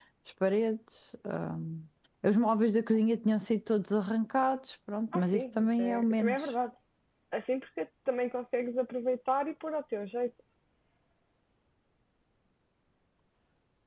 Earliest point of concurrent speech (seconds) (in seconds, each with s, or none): 5.1 s